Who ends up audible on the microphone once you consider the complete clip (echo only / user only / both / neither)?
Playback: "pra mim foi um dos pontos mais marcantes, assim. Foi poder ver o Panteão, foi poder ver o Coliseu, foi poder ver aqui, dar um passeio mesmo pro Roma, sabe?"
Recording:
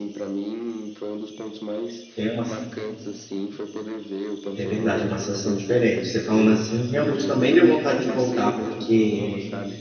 both